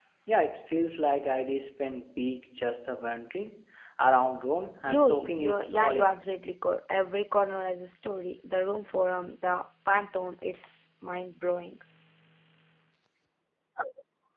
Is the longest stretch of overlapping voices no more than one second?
No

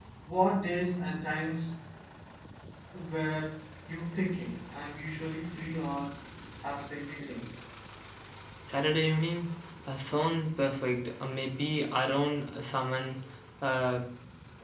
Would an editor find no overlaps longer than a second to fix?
Yes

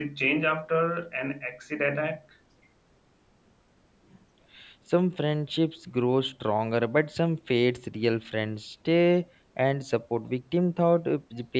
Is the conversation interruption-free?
Yes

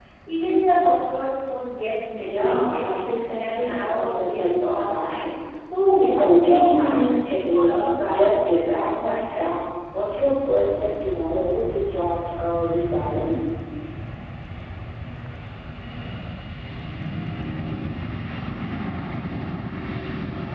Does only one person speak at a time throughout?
No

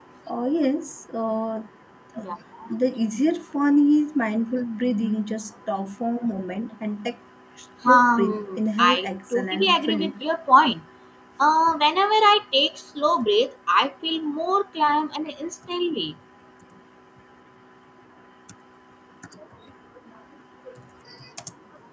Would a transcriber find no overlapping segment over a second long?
No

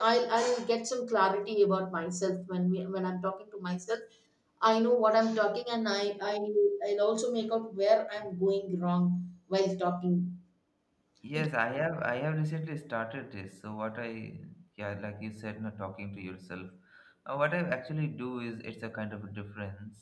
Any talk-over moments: No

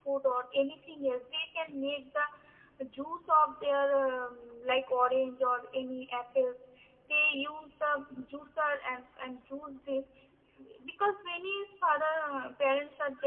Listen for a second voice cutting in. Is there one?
No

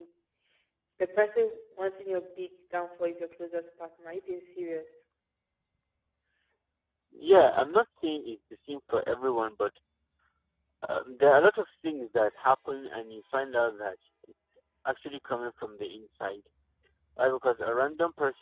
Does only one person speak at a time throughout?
Yes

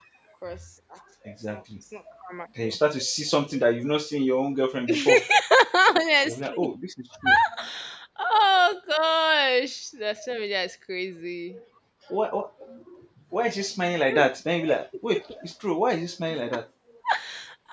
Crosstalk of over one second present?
No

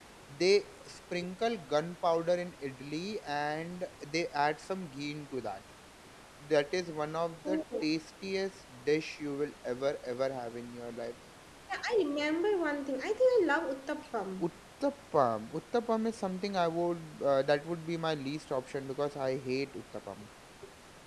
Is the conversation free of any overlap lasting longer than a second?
Yes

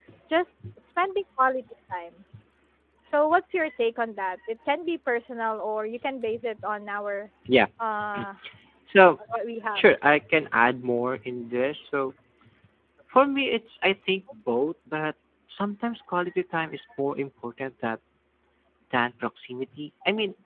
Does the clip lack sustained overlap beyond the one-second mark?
Yes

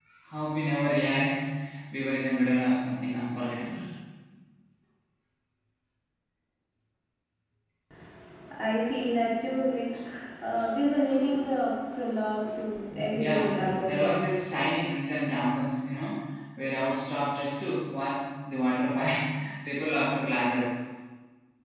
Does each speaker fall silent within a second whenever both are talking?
No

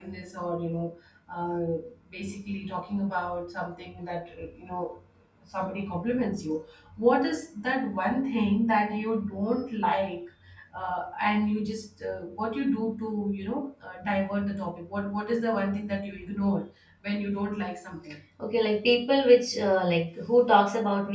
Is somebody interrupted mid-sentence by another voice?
No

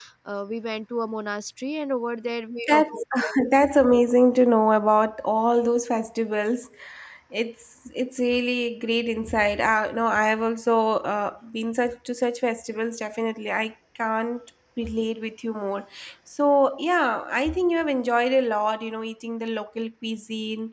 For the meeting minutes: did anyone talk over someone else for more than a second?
No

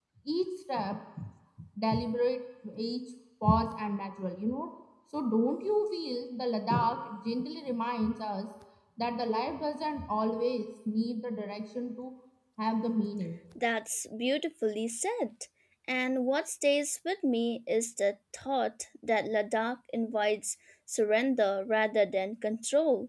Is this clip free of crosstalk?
Yes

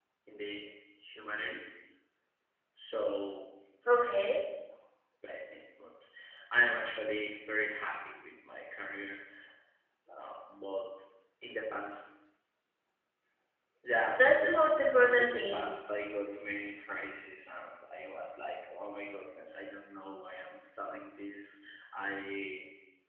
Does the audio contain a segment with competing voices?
Yes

